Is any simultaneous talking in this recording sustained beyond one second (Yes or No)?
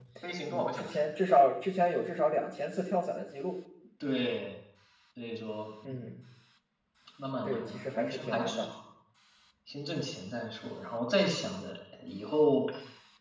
Yes